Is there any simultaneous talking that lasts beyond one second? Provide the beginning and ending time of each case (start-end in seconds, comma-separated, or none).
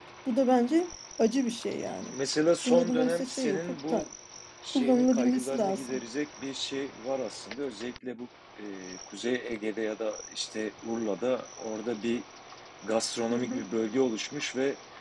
2.6-4.1, 4.7-6.0